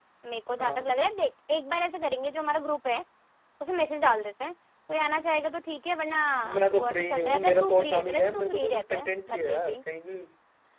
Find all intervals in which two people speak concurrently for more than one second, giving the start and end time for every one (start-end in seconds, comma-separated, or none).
6.6-9.8